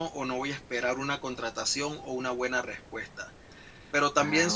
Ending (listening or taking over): listening